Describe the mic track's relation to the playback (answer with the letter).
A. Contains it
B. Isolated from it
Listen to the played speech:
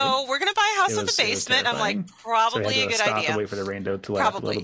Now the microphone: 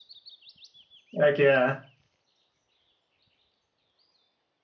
B